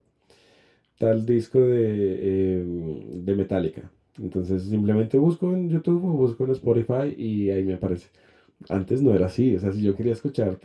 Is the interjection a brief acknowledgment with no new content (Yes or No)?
Yes